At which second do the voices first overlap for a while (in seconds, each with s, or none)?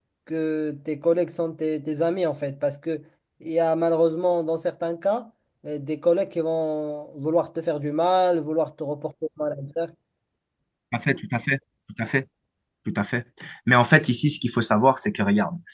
none